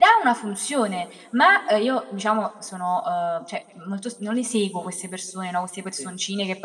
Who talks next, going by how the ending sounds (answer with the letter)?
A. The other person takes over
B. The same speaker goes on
B